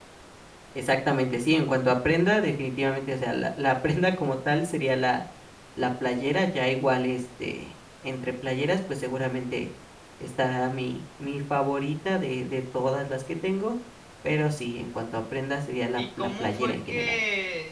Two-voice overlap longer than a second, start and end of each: 16.0-17.2

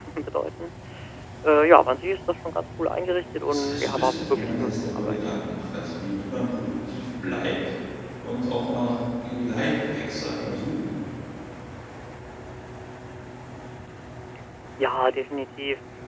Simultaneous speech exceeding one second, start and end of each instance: 3.5-5.3

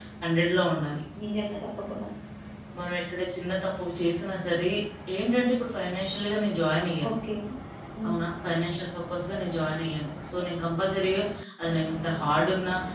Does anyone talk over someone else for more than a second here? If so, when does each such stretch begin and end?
none

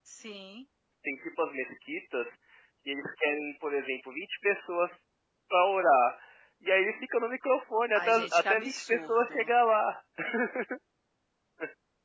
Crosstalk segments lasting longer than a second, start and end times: 7.9-9.5

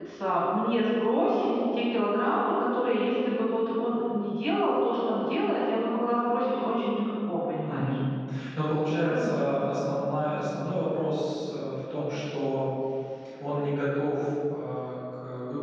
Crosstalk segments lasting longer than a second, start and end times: none

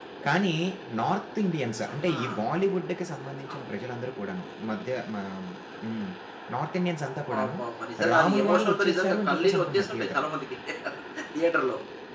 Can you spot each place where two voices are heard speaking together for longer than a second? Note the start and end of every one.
8.1-10.3

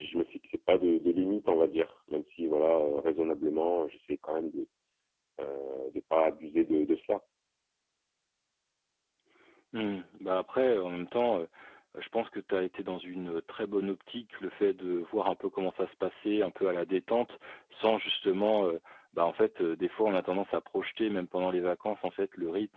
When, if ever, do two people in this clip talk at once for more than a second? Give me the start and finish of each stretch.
none

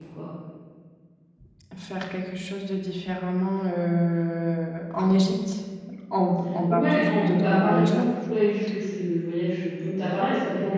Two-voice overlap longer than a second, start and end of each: 6.7-8.1

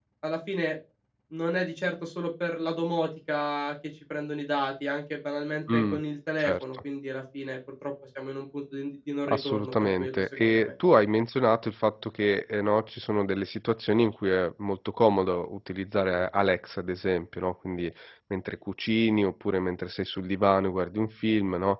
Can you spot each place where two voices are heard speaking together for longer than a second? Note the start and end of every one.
9.3-10.7

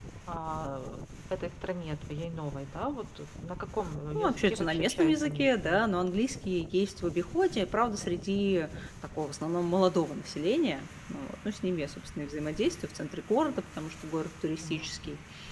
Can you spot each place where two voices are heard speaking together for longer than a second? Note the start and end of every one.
4.2-5.8

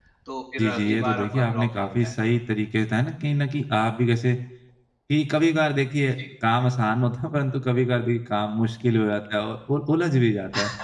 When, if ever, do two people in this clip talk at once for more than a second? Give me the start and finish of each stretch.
0.6-2.1

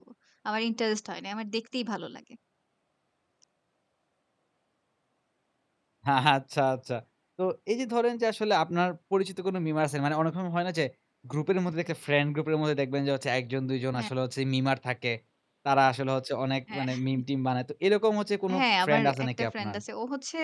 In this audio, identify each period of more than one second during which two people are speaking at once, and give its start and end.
18.5-19.8

